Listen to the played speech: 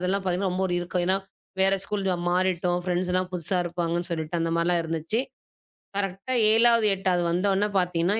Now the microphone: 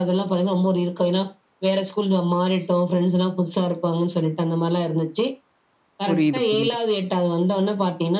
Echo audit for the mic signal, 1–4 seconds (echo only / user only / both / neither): echo only